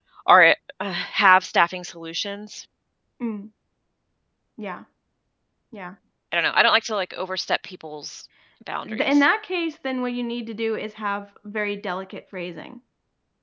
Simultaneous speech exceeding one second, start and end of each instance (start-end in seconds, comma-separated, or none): none